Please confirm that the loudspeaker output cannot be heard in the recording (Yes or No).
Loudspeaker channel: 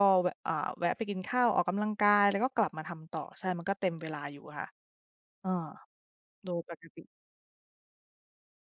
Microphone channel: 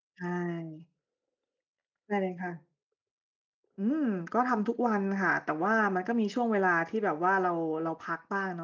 Yes